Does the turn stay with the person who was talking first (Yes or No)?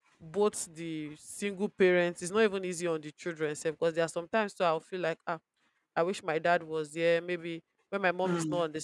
Yes